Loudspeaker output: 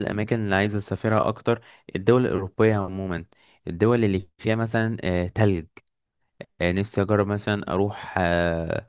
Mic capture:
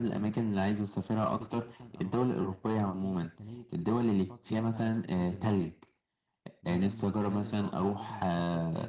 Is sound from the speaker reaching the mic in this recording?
Yes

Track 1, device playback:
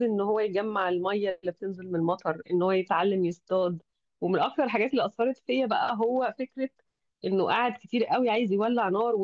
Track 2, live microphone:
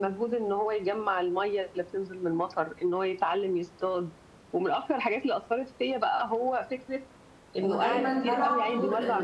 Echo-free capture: No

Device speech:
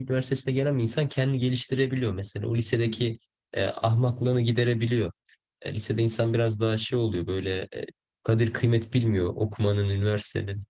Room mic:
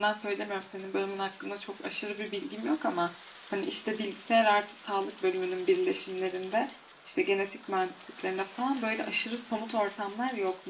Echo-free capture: Yes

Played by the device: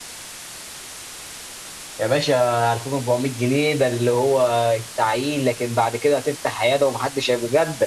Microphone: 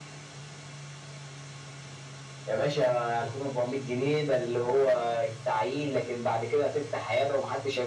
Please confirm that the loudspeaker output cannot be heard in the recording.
No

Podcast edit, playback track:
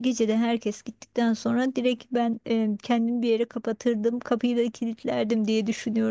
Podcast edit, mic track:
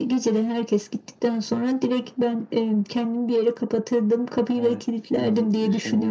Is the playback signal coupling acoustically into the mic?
Yes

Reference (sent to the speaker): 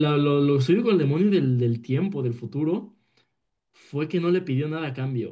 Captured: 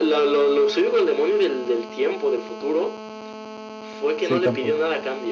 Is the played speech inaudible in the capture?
No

